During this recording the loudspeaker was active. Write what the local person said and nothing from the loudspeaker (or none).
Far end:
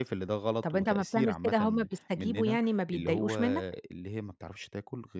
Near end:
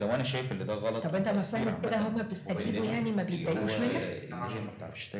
الموبايل يتقفل ما يفتحش غير الساعة 10:00